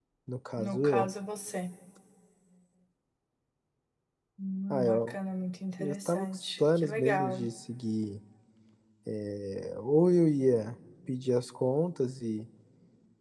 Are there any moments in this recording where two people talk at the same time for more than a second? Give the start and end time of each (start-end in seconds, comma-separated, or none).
5.8-7.5